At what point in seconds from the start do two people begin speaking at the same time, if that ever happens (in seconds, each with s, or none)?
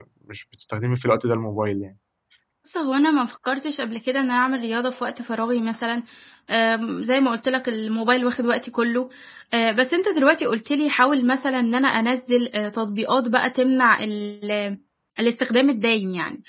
none